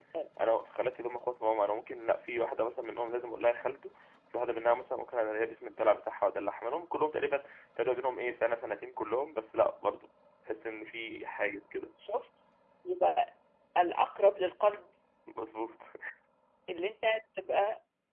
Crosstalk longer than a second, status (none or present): none